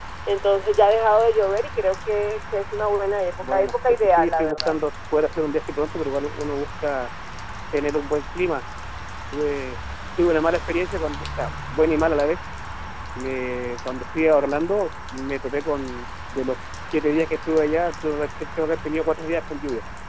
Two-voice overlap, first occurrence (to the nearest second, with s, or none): 3 s